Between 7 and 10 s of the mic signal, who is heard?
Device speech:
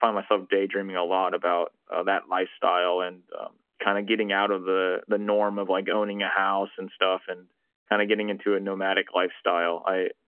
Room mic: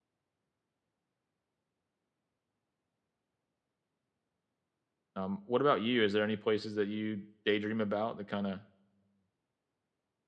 user only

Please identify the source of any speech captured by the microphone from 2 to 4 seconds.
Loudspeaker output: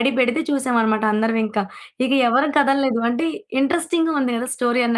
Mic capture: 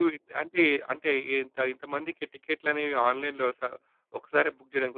user only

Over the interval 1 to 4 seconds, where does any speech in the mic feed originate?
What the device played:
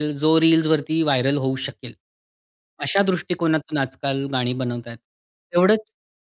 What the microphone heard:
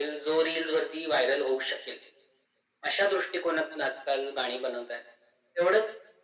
echo only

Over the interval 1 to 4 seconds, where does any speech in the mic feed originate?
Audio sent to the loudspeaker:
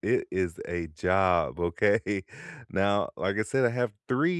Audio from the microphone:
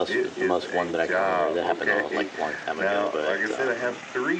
both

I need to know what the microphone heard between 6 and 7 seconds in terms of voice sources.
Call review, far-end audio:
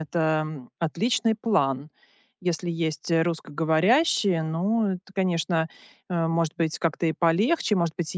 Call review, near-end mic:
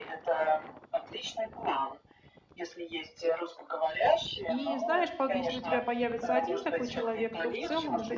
both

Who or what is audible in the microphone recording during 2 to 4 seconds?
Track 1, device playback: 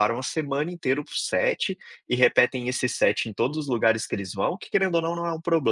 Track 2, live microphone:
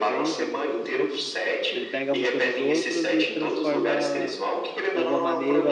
both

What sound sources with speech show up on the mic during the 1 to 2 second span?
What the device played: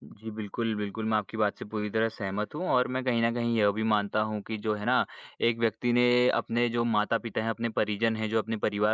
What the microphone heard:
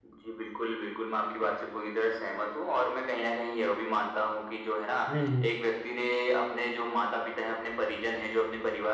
echo only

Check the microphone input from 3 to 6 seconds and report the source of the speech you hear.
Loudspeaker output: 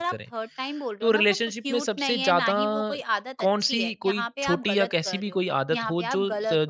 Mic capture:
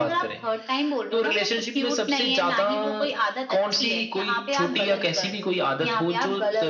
echo only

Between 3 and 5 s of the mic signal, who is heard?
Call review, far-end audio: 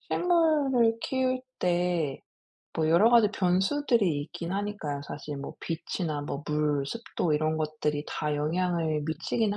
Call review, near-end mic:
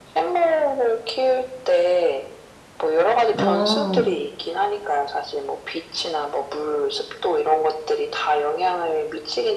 both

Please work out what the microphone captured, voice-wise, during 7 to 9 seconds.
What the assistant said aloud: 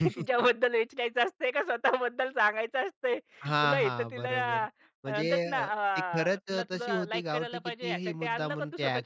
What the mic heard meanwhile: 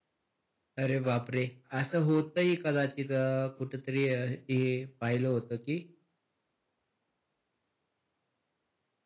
neither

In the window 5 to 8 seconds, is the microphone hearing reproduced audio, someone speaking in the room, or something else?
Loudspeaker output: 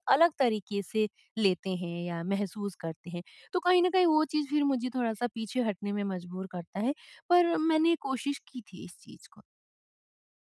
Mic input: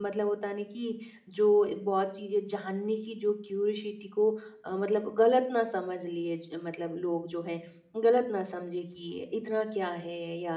user only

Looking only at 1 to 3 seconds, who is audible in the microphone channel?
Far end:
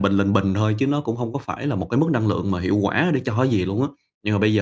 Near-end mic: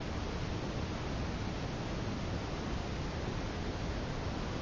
neither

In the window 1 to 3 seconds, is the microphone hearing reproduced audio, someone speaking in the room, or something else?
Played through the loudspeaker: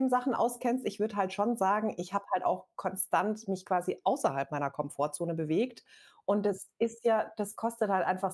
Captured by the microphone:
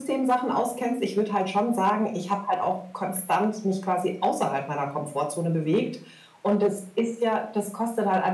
echo only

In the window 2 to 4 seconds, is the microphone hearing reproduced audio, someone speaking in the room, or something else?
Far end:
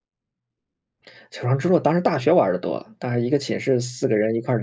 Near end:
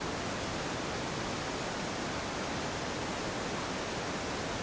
neither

